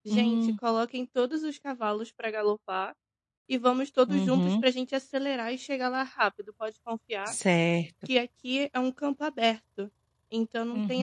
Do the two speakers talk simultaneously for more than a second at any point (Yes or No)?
No